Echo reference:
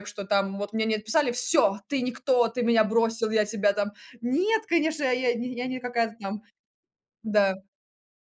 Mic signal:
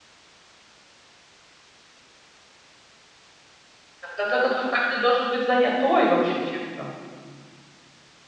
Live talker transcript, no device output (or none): Да, в конце концов, каждый должен быть занятой, вообще, чем-то.